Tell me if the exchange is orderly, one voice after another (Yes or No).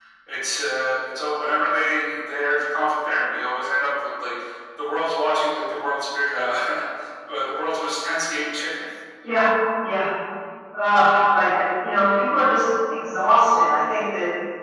Yes